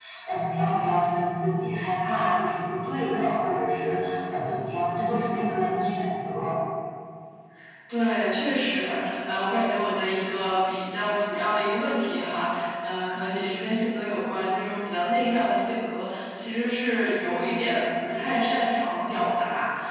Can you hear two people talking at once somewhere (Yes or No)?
No